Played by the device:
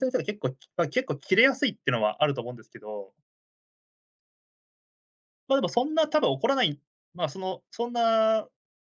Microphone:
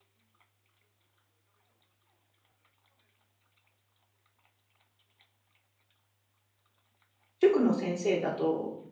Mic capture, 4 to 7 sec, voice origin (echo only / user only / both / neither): neither